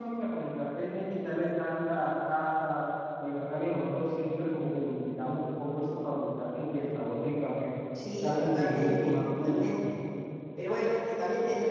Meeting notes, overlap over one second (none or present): present